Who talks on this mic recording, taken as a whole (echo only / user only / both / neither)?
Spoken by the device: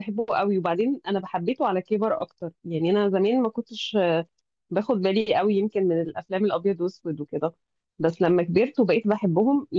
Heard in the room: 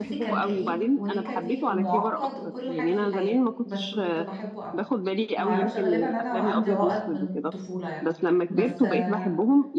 both